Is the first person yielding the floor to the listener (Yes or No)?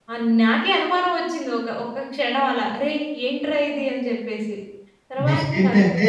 Yes